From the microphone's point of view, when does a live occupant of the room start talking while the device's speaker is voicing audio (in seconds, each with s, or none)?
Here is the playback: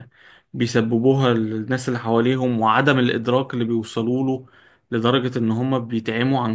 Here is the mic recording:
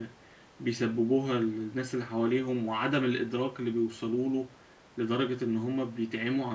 none